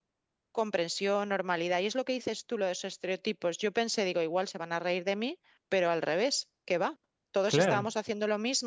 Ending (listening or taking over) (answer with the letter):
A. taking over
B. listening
B